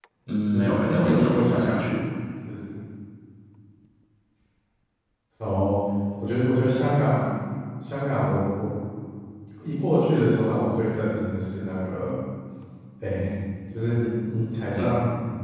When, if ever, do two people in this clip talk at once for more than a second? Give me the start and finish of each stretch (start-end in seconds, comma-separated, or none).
0.5-1.9